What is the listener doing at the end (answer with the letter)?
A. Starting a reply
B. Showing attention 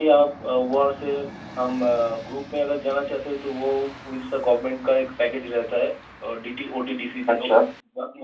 B